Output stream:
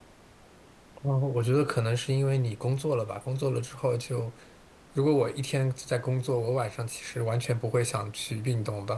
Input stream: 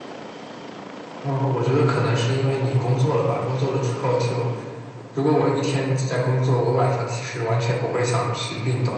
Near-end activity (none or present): none